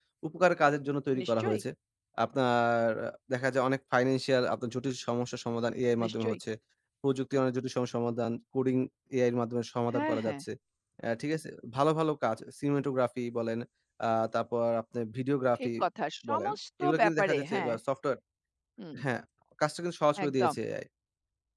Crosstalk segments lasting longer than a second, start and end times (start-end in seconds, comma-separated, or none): 16.3-17.7